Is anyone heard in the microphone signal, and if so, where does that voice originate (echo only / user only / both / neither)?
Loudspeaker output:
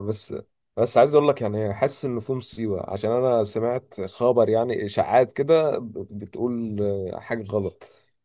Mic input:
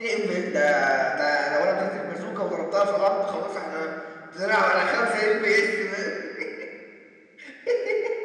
user only